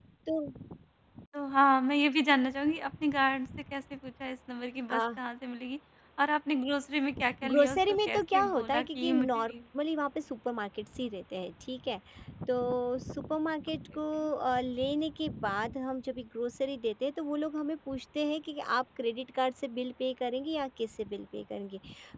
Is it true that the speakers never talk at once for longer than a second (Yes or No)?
No